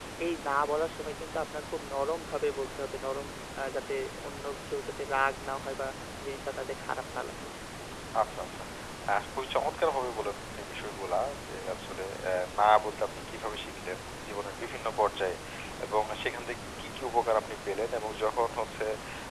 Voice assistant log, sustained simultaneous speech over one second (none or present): none